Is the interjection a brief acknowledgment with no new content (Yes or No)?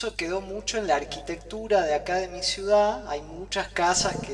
Yes